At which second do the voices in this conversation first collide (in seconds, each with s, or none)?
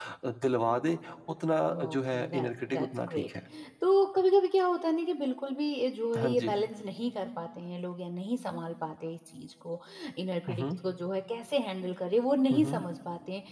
1.7 s